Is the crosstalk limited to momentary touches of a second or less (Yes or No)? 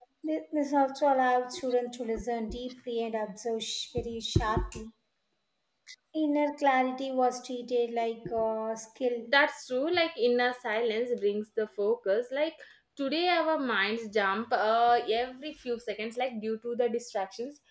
Yes